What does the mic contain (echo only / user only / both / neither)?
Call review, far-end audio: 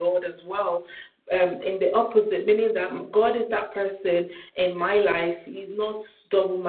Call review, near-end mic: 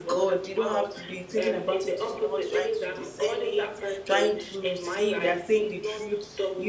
both